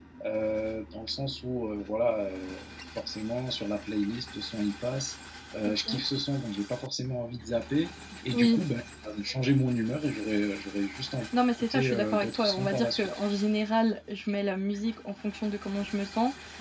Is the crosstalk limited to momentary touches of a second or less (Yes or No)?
No